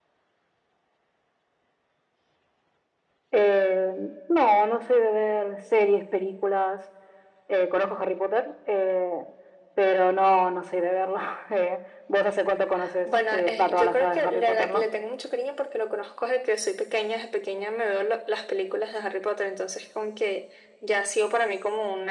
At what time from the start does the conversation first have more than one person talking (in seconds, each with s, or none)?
13.1 s